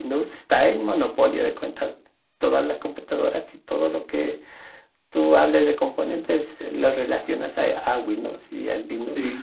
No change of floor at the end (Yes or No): No